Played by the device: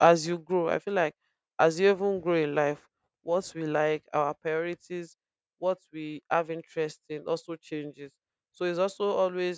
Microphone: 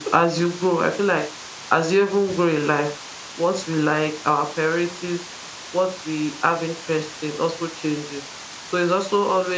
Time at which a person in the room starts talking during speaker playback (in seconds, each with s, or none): none